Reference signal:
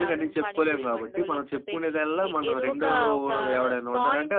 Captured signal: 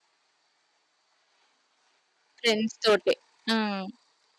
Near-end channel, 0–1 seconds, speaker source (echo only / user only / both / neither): neither